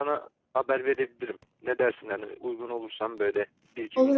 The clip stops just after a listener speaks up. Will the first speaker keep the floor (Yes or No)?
No